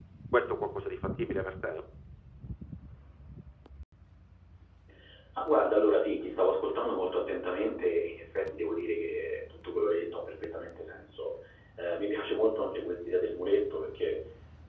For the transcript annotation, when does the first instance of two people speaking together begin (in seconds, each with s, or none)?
none